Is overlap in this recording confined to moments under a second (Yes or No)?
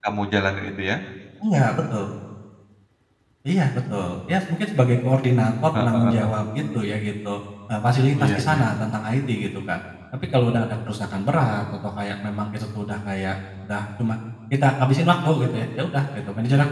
Yes